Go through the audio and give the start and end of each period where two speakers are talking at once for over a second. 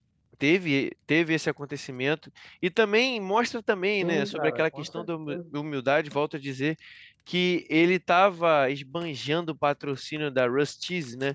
4.0-5.4

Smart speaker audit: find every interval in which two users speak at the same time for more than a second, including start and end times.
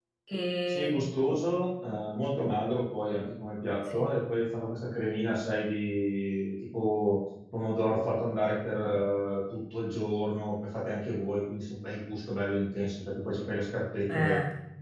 none

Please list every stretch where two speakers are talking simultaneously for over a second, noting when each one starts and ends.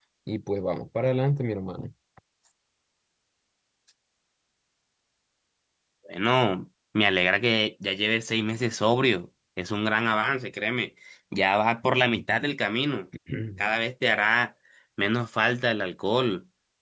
none

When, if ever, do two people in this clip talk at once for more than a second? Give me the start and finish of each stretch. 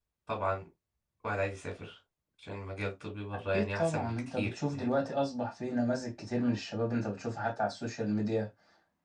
3.5-4.9

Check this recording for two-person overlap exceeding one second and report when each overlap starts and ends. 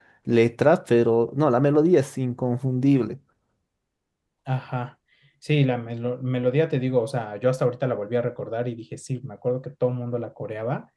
none

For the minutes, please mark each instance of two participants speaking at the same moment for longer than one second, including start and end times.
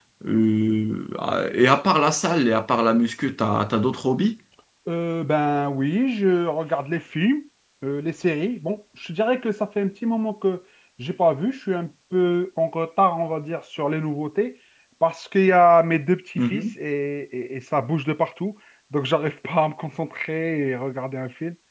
none

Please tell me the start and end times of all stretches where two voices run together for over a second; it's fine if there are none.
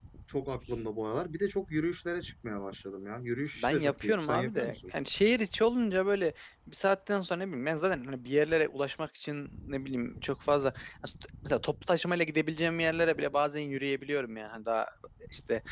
3.6-4.9

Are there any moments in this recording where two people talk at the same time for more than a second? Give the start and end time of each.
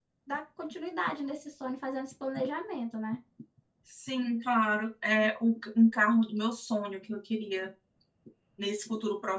none

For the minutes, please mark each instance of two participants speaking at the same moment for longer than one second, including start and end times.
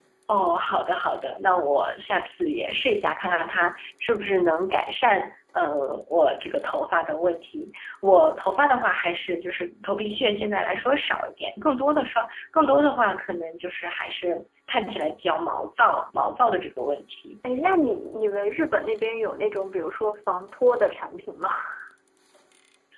none

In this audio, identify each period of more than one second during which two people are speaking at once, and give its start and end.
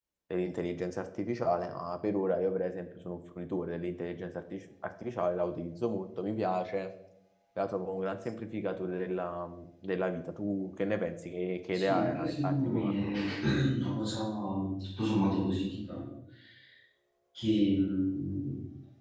11.7-13.1

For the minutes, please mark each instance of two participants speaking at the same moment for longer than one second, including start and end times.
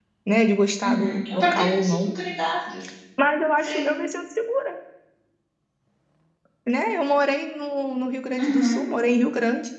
0.8-2.1

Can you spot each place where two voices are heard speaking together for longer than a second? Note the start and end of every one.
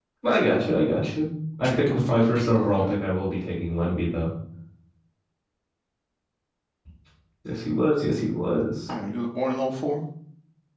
1.6-2.9

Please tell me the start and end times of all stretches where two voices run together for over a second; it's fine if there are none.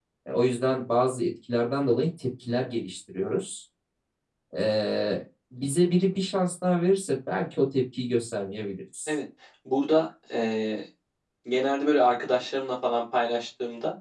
none

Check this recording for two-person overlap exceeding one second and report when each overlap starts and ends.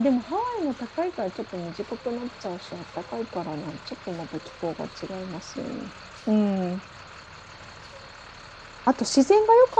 none

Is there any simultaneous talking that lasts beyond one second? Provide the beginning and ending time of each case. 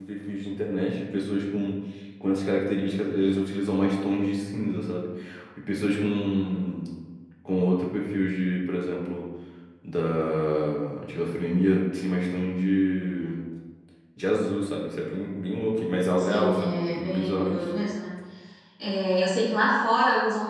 16.2-17.7

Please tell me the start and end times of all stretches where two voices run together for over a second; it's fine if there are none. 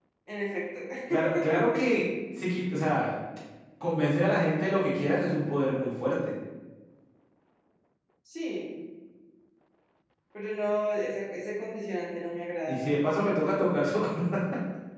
none

